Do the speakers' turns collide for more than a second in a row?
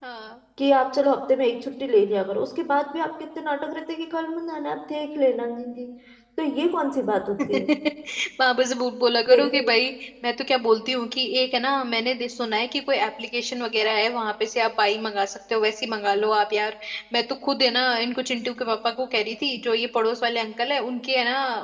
No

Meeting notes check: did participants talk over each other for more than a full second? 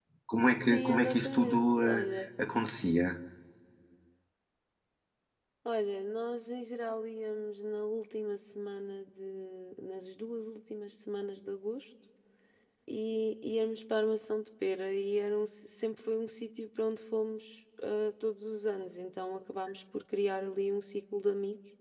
Yes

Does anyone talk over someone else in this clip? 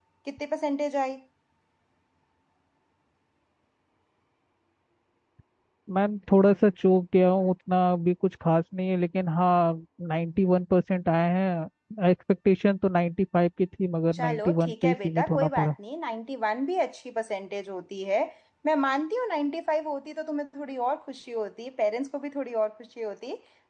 Yes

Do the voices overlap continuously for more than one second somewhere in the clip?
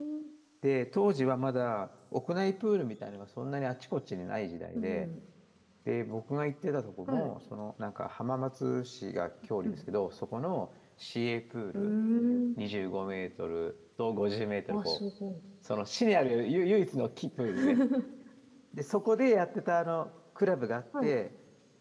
No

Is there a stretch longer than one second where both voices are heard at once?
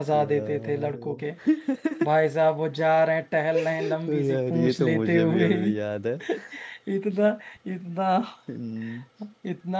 Yes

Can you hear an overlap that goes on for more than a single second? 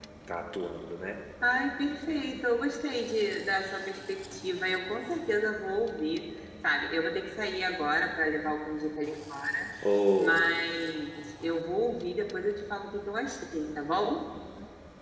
No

